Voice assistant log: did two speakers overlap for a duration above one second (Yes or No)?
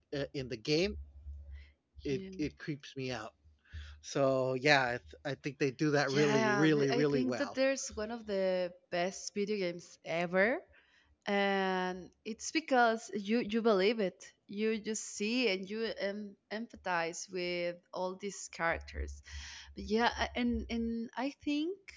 Yes